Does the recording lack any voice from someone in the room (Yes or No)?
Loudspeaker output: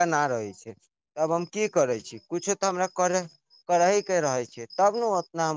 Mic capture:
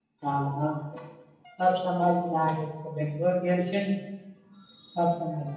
No